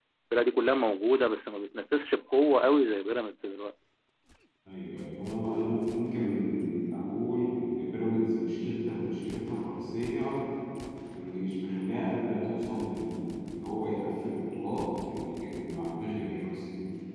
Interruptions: none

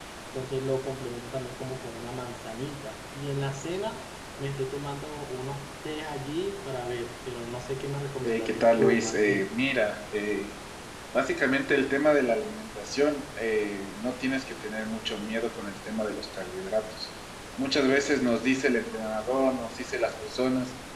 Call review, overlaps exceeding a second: present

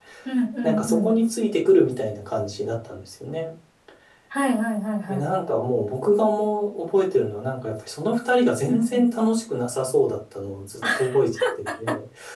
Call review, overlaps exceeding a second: none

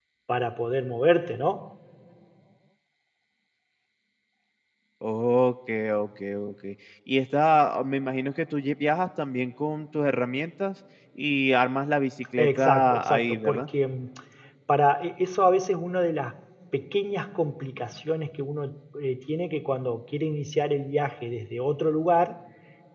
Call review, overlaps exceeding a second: present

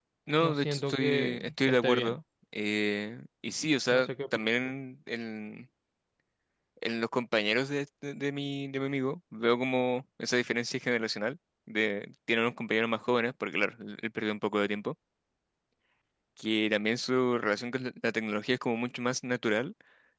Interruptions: present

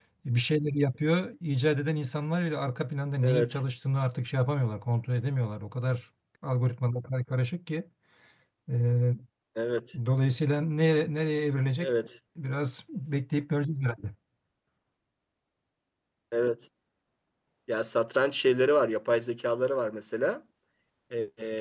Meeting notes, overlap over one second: none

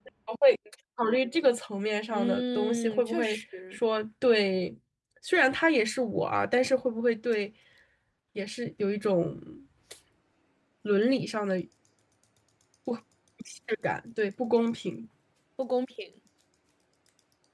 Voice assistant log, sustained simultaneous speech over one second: present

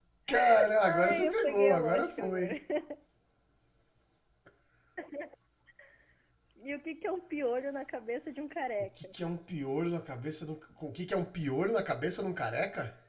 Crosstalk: present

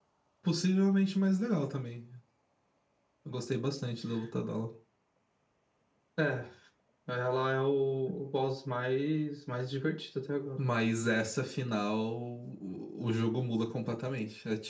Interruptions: none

